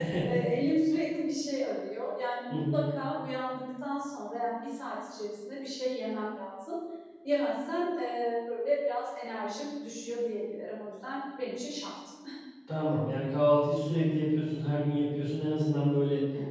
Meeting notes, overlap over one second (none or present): none